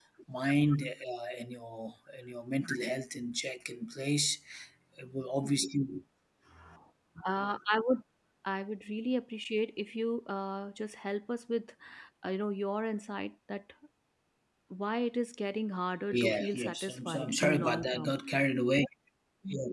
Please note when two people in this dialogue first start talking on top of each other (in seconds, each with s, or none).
16.1 s